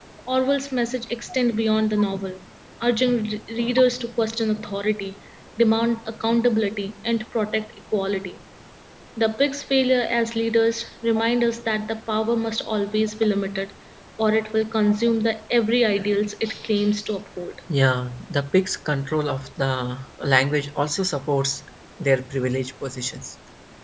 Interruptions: none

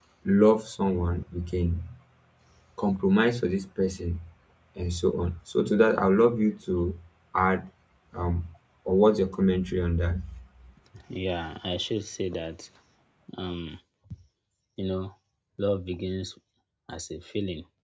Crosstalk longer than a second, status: none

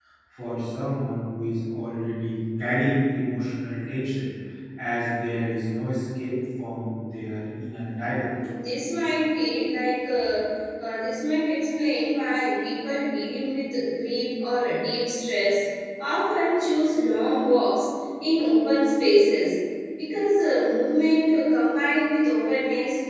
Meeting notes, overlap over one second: none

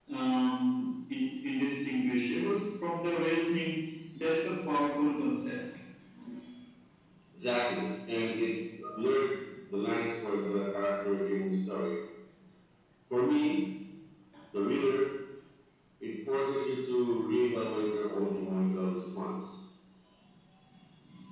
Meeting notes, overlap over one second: none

